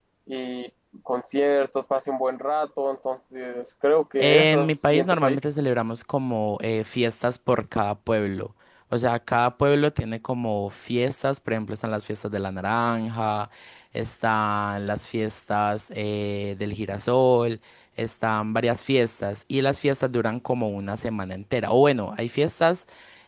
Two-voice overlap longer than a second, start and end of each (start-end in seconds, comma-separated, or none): 4.2-5.4